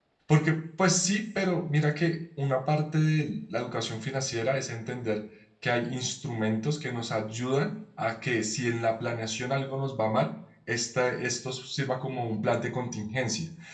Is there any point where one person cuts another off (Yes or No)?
No